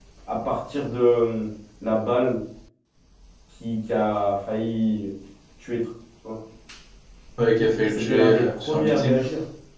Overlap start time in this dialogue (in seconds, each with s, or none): 7.9 s